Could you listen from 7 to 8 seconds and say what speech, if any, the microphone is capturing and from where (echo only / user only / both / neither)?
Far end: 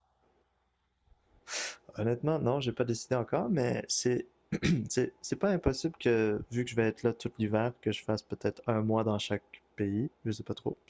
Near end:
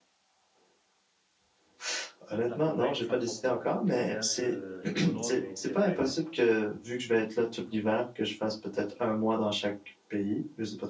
echo only